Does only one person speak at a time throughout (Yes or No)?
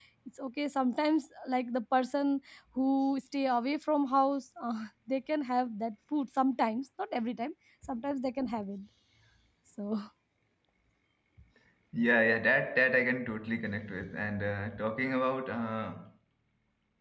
Yes